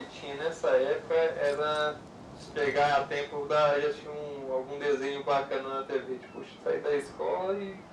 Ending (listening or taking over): listening